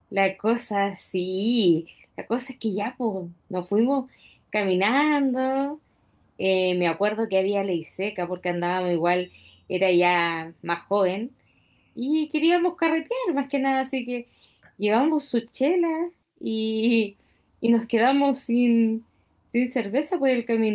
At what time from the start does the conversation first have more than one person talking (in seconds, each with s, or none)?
none